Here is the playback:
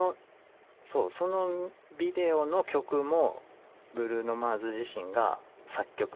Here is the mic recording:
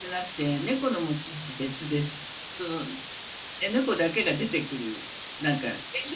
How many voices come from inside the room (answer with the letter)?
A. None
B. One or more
B